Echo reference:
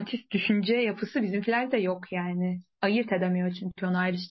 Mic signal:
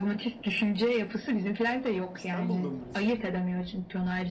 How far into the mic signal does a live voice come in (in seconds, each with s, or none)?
2.1 s